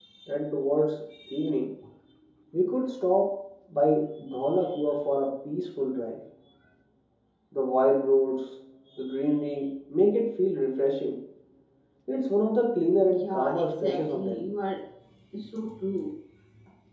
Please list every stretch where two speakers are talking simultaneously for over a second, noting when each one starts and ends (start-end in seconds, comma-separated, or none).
13.1-14.5